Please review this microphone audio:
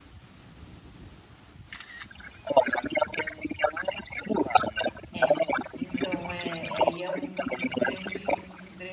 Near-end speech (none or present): present